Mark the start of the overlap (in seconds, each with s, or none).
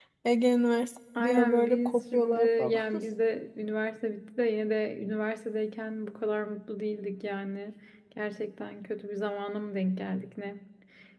1.2 s